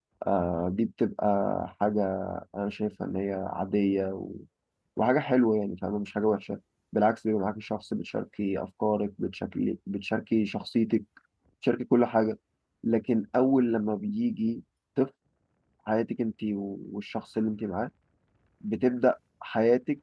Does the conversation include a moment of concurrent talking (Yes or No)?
No